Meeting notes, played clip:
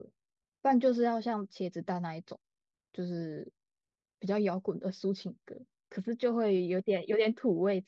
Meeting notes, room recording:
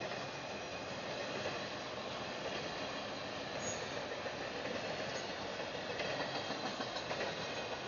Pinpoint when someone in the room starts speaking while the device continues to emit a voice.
none

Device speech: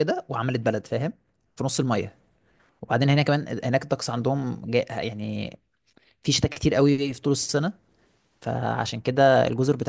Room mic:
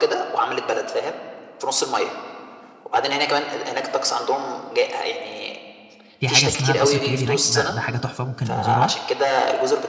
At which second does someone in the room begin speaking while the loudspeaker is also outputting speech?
6.2 s

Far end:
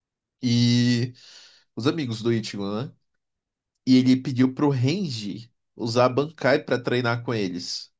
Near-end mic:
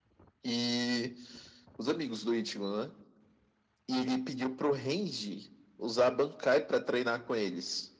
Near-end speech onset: none

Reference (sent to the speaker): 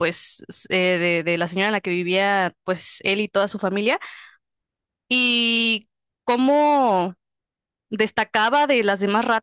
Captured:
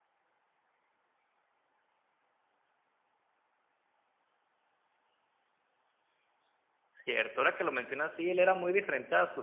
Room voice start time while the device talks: 6.9 s

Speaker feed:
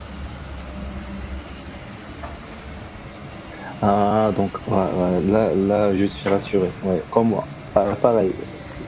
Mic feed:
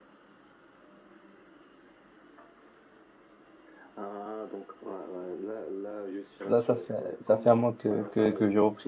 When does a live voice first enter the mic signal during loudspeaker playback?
6.5 s

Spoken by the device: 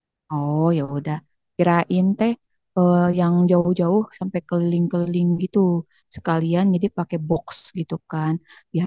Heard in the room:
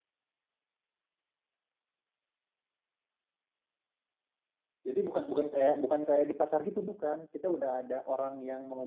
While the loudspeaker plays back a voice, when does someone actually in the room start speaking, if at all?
4.9 s

